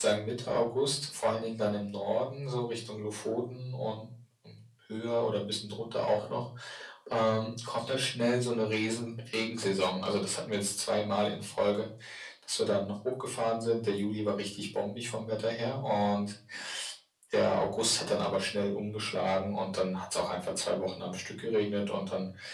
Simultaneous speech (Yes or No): No